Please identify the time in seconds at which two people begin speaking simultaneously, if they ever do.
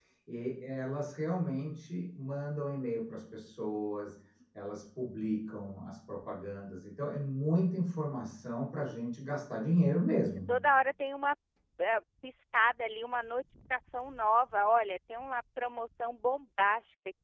none

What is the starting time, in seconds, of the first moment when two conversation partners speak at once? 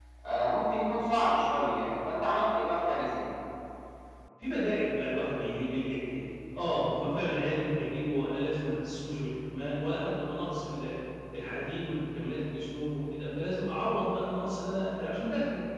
none

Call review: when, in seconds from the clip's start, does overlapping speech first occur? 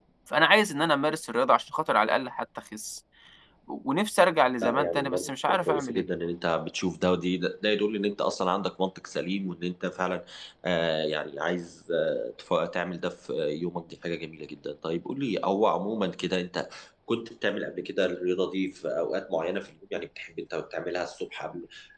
4.6 s

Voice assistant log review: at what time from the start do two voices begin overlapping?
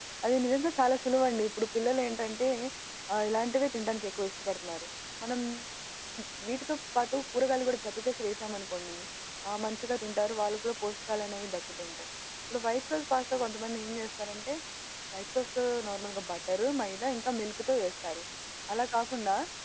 none

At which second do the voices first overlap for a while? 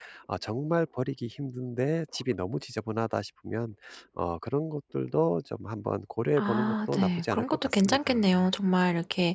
6.4 s

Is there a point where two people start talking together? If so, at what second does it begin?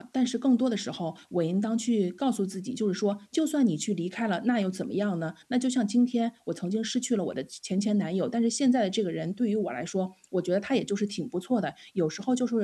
none

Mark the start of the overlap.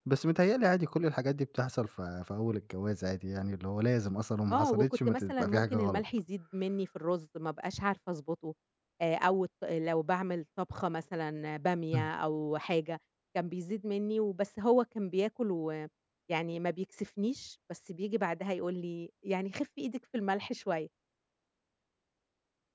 4.5 s

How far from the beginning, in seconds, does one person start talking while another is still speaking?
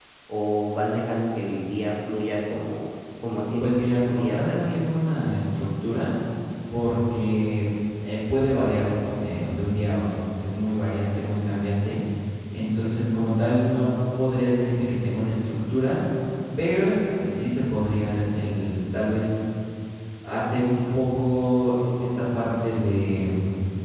3.2 s

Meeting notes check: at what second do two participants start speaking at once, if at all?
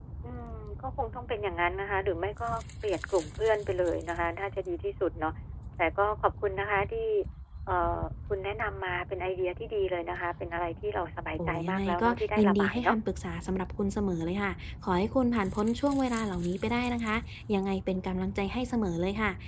11.4 s

